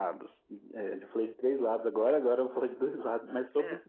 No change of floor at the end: Yes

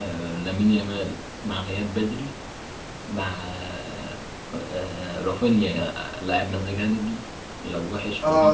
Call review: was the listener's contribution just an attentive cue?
No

